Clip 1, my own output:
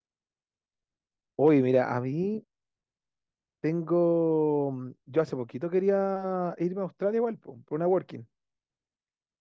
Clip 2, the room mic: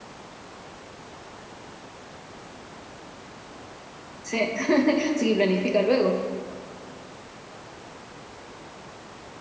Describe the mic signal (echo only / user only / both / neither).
user only